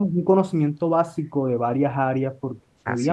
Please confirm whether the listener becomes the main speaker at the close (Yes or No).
No